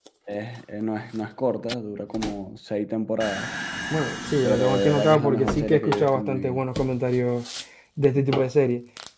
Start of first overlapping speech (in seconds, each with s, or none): 4.4 s